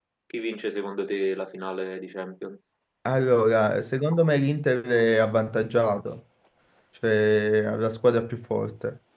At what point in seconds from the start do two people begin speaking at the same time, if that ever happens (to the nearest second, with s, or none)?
none